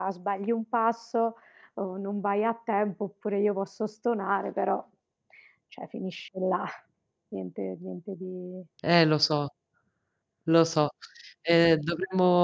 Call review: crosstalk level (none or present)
none